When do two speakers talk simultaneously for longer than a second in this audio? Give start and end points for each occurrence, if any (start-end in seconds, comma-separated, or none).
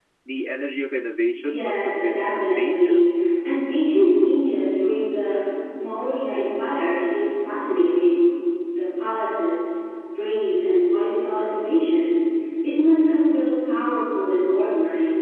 1.4-3.0